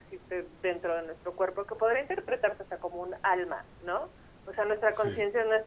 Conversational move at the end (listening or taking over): listening